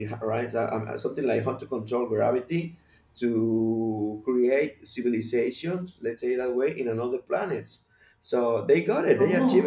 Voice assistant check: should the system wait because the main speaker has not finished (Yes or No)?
Yes